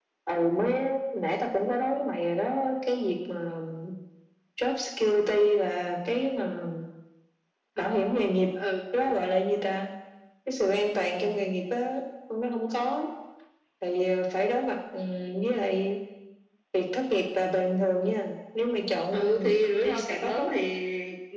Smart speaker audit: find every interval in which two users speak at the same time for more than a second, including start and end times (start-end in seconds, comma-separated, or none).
19.1-20.4